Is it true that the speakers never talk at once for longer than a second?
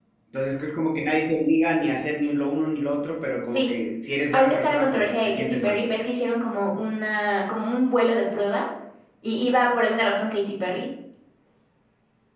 No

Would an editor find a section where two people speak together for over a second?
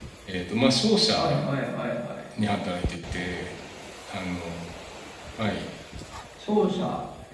No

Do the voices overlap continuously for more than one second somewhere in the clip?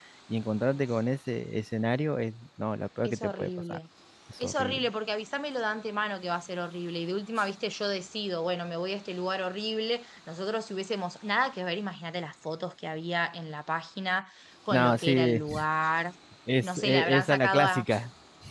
Yes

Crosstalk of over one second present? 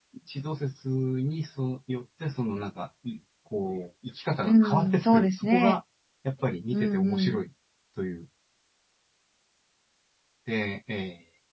Yes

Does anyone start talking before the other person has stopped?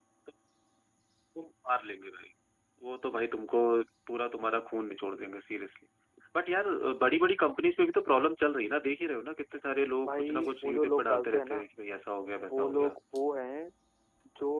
Yes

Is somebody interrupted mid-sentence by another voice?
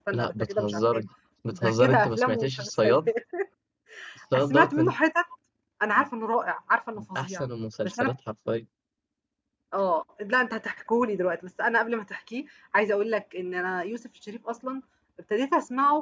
Yes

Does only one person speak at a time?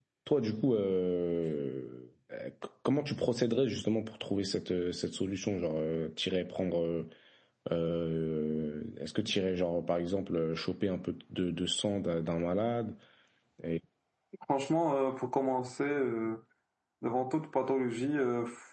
Yes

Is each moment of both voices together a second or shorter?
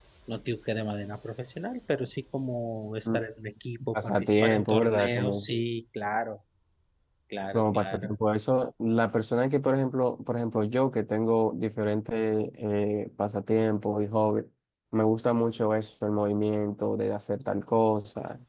No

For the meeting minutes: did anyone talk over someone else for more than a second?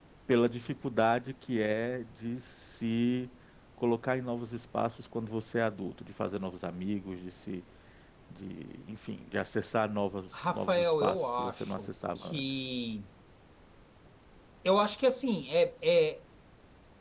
Yes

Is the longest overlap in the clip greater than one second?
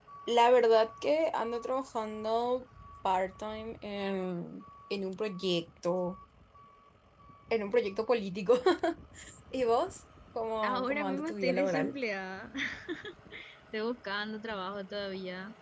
Yes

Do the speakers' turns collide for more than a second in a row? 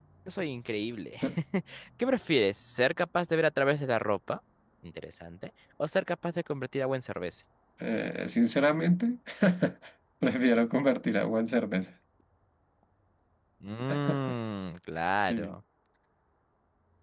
No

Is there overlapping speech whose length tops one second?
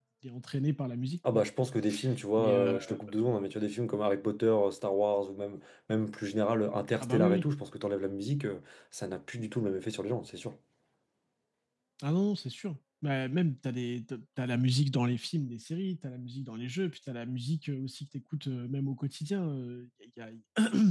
No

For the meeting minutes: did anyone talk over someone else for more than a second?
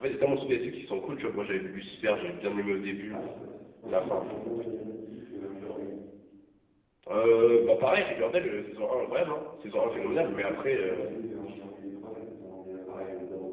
Yes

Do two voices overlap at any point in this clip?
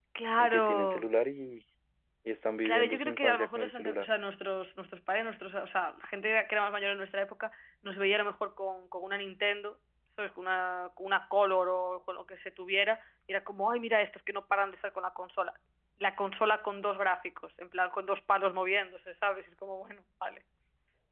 Yes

